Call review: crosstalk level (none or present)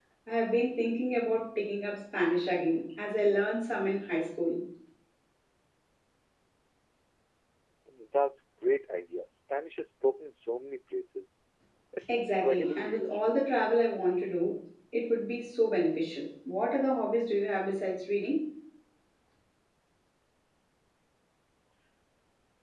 present